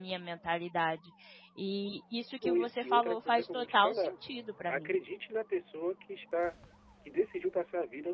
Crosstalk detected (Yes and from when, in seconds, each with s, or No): Yes, from 2.4 s